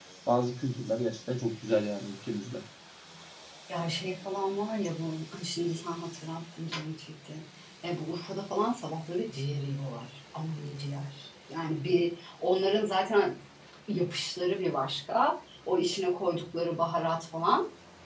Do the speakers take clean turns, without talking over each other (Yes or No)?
Yes